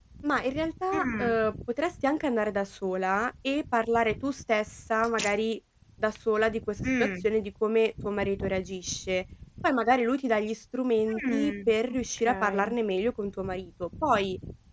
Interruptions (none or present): present